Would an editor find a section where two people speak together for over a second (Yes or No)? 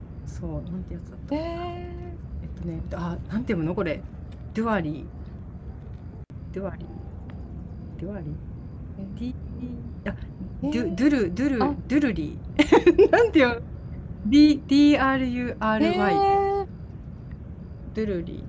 No